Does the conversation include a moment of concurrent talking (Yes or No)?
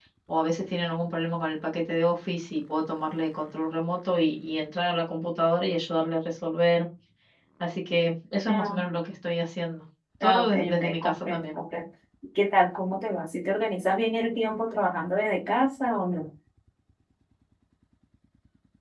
Yes